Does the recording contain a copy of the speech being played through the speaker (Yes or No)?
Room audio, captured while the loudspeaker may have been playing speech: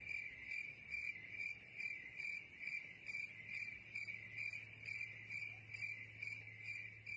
No